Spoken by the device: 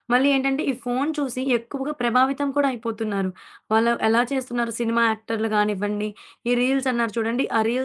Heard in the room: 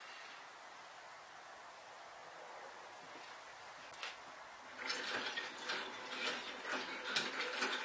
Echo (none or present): none